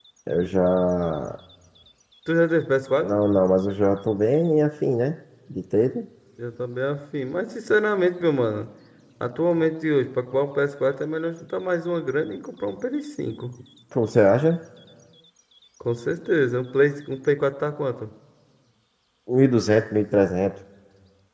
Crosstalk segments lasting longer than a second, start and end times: none

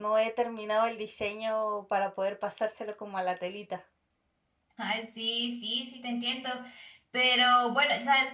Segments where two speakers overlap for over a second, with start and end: none

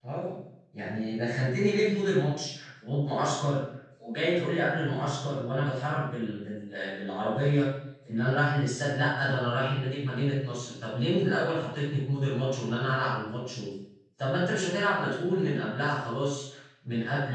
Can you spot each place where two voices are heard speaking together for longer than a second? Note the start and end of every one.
none

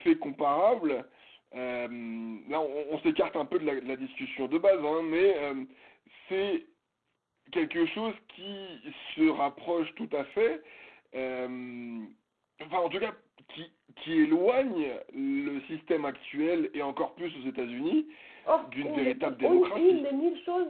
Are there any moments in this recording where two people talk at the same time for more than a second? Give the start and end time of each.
18.6-20.0

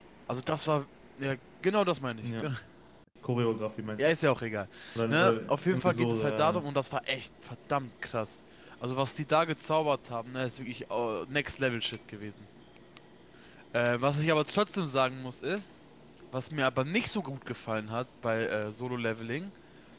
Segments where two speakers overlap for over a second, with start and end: 5.1-6.6

